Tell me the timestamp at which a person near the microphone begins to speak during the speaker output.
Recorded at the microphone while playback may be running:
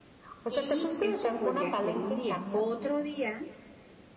0.5 s

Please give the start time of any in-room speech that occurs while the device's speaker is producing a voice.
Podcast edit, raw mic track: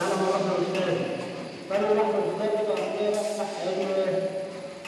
none

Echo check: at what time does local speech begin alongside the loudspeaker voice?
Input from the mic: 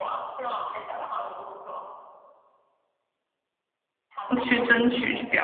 4.2 s

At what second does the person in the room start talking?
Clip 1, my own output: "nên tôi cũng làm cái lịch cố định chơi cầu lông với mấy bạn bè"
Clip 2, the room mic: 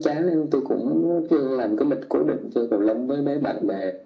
none

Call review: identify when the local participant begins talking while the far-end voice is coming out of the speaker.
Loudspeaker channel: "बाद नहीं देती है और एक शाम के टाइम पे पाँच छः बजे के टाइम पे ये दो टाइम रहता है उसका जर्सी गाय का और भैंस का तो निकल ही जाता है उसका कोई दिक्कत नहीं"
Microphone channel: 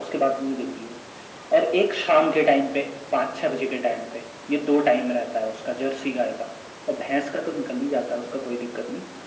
none

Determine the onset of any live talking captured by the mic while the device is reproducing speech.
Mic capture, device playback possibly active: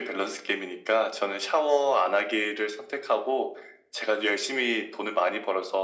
none

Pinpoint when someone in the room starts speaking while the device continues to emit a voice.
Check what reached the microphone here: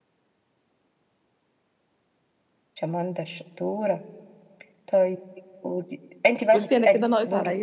6.5 s

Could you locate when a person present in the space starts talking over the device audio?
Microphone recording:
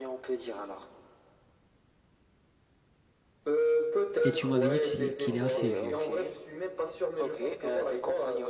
4.2 s

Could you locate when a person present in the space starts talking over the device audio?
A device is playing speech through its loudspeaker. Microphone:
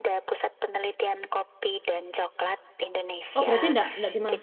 3.3 s

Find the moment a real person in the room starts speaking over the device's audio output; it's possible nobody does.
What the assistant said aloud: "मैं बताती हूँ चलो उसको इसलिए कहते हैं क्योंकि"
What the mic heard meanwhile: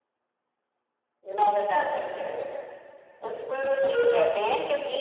none

